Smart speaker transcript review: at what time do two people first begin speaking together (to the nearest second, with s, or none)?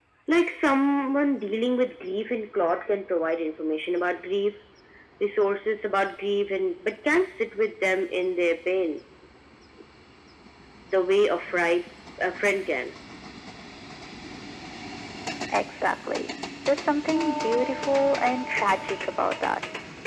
none